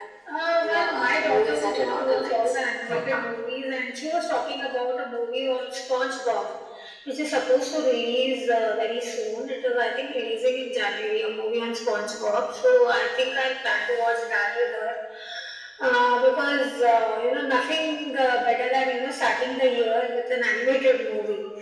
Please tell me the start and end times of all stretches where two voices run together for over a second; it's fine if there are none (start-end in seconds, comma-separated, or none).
0.6-2.5